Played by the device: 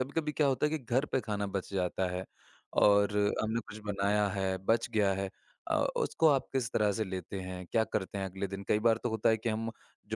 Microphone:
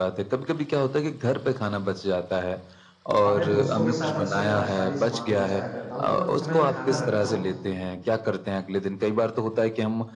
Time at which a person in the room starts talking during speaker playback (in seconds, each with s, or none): 3.2 s